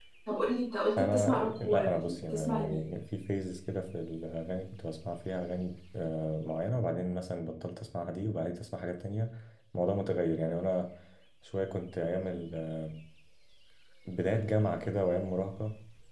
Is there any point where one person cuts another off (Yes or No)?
Yes